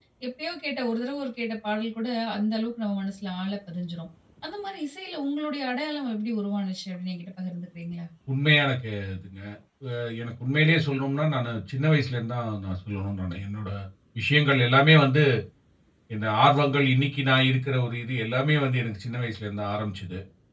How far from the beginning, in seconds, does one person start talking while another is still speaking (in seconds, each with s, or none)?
none